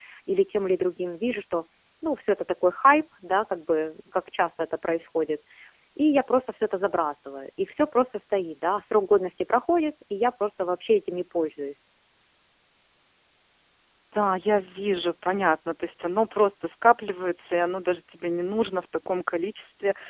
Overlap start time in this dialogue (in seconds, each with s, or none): none